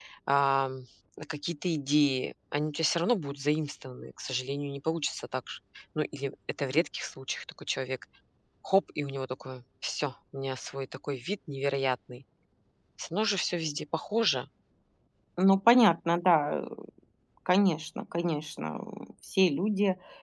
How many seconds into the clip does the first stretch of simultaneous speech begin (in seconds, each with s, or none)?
none